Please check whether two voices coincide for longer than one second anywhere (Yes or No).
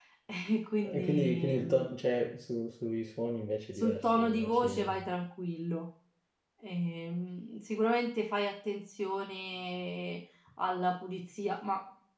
Yes